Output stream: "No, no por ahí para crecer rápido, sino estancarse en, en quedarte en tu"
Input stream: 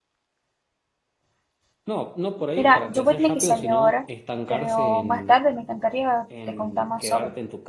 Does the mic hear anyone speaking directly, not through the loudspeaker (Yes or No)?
Yes